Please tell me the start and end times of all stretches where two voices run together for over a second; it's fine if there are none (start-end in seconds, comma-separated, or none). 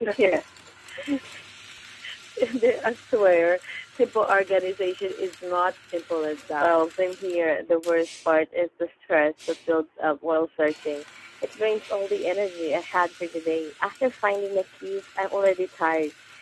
none